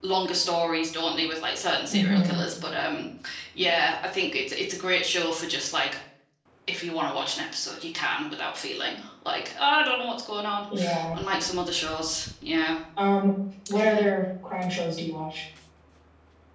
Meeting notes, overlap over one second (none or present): none